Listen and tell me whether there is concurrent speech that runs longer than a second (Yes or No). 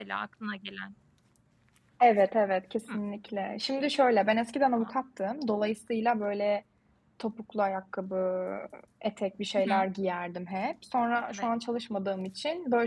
No